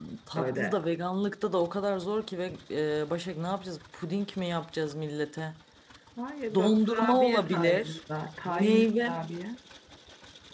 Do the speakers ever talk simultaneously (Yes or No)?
Yes